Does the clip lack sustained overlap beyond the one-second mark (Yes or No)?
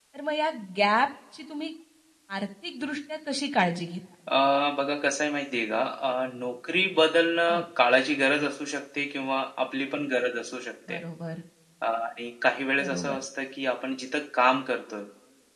Yes